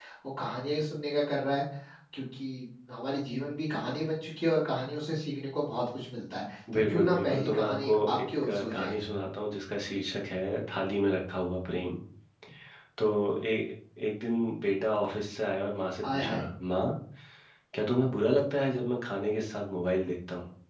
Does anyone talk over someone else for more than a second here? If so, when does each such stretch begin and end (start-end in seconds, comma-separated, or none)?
6.7-9.0